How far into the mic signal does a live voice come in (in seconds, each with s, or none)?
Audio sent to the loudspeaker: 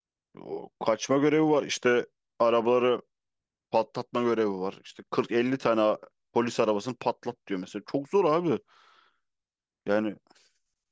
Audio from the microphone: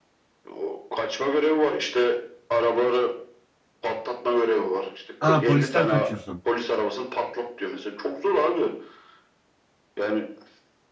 5.2 s